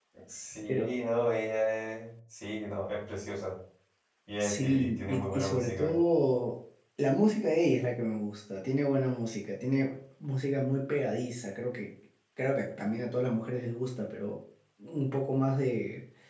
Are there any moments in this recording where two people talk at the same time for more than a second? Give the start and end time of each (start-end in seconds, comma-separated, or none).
4.4-6.0